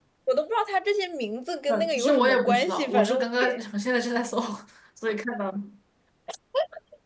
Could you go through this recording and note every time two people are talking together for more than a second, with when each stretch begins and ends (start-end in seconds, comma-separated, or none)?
1.7-3.6